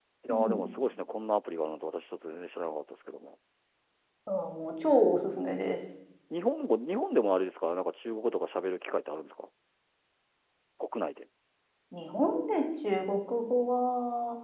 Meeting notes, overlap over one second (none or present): none